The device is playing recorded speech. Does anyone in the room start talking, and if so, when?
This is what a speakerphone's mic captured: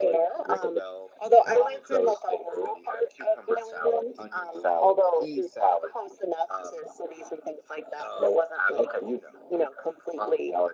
none

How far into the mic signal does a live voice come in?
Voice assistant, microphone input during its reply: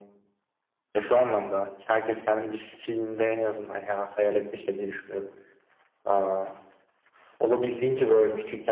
none

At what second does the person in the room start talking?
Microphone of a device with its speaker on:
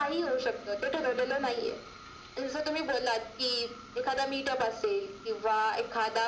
none

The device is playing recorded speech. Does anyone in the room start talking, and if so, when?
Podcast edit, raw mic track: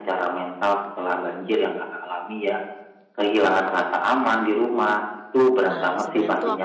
5.7 s

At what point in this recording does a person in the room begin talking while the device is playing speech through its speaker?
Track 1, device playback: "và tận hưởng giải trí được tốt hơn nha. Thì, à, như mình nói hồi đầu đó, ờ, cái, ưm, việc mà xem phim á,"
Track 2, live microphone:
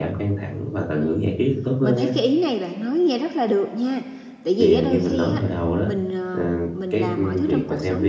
0.9 s

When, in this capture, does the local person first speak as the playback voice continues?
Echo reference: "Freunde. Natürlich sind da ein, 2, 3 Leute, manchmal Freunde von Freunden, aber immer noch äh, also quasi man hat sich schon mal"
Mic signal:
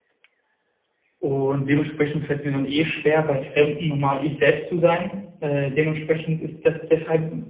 1.2 s

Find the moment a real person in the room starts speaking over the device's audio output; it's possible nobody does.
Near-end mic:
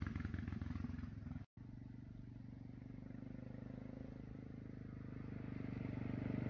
none

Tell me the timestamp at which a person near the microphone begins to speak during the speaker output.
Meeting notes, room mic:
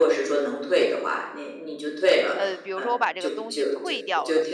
2.3 s

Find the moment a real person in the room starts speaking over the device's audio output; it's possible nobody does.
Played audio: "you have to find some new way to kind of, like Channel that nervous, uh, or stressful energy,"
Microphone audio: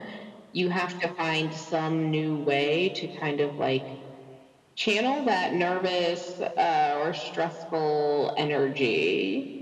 none

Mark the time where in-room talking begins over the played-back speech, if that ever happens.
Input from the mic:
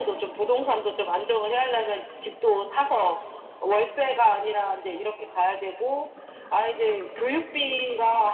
none

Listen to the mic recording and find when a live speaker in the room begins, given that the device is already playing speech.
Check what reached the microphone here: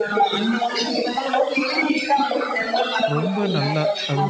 3.1 s

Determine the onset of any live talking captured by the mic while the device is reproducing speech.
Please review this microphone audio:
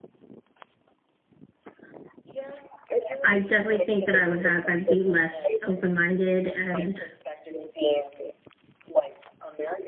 3.2 s

